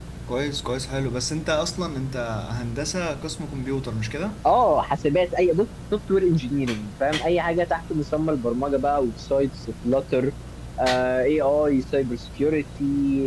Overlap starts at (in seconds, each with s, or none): none